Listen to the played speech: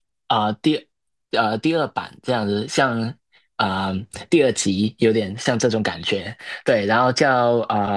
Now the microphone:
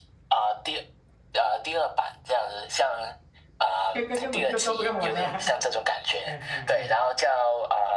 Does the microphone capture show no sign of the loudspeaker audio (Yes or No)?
No